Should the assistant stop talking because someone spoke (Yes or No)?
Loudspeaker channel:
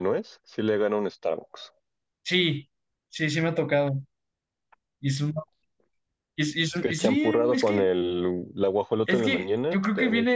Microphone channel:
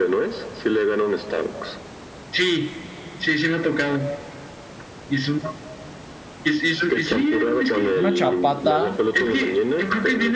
Yes